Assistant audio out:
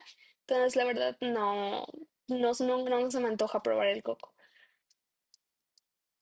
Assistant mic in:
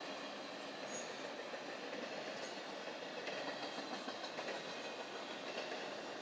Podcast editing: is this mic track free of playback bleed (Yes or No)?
Yes